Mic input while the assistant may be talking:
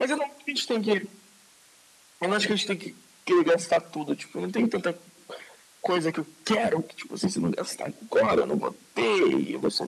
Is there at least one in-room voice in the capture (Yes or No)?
No